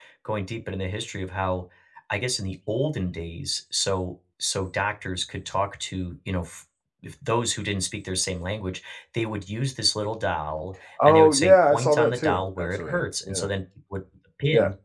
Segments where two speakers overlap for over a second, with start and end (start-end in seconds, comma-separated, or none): 11.0-13.5